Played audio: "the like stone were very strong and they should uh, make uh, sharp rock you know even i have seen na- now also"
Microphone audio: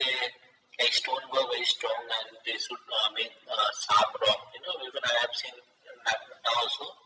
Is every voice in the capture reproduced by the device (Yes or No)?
Yes